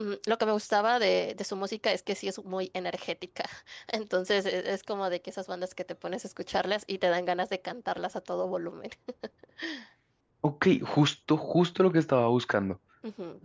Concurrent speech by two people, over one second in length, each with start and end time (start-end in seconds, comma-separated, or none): none